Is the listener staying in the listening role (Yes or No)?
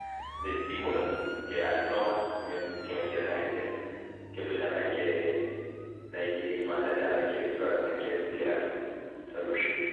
Yes